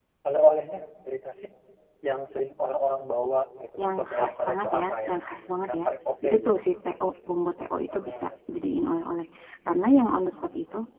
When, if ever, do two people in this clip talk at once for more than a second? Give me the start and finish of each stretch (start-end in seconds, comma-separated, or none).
3.8-5.8